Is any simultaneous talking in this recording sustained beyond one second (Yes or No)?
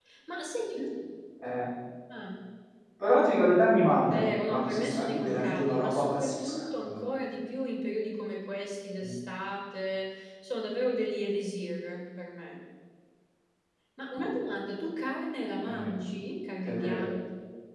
Yes